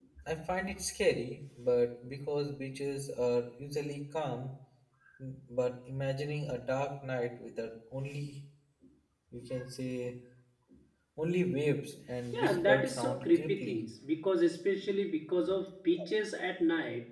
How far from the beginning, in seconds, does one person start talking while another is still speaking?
12.3 s

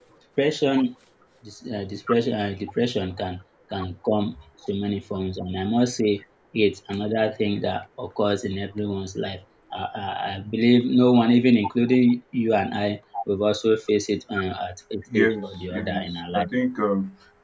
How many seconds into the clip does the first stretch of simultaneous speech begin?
15.1 s

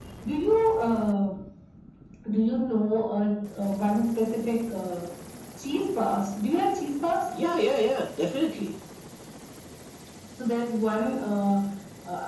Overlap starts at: none

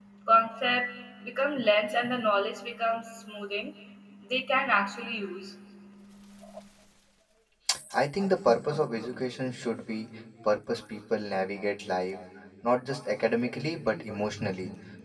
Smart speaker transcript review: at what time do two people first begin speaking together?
none

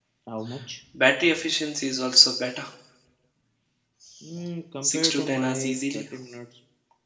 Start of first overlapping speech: 4.8 s

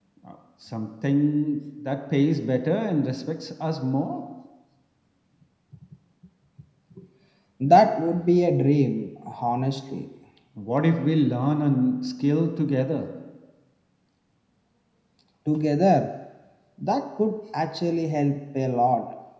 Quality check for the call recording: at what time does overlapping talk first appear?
none

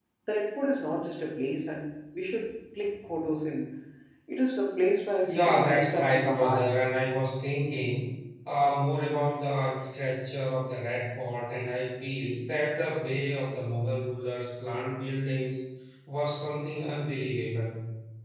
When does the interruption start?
5.2 s

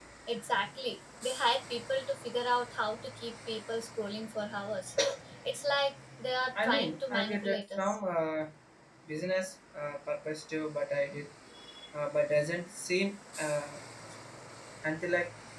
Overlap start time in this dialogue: 6.5 s

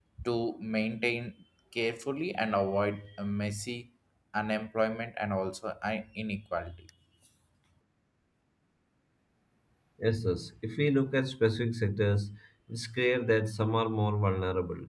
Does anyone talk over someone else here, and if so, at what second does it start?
none

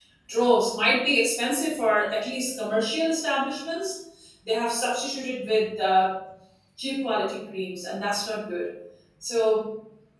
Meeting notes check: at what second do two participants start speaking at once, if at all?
none

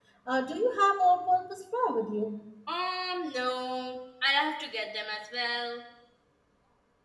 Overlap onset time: none

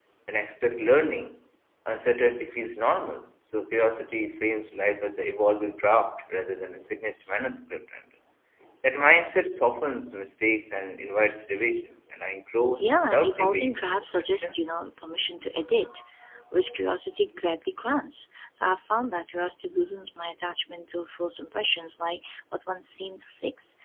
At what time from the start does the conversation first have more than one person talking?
12.7 s

